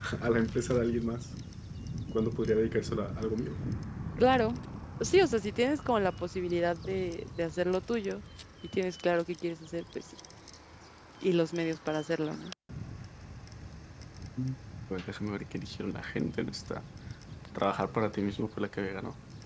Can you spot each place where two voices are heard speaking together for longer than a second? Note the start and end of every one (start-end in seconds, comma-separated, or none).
none